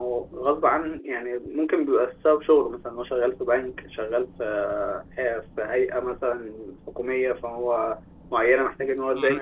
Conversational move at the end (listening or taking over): taking over